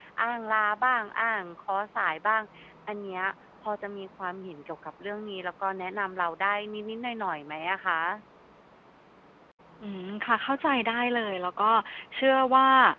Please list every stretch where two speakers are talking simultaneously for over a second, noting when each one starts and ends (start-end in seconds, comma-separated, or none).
none